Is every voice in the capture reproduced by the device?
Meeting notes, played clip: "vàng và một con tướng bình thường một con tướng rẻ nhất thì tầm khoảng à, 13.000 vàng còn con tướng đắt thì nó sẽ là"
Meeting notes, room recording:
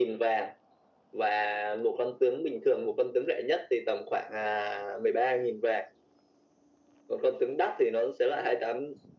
Yes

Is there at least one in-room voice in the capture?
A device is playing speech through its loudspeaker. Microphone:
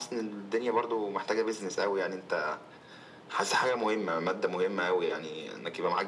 No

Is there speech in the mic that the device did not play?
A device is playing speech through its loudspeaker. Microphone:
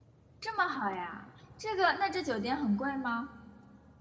Yes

